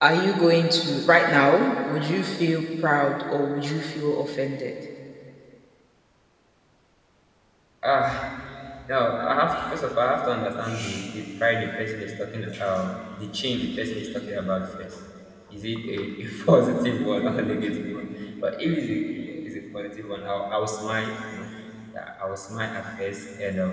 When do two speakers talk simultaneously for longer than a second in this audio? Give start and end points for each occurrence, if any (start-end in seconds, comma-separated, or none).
none